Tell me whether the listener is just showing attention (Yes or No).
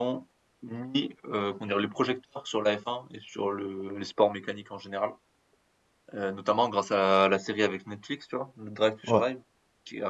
Yes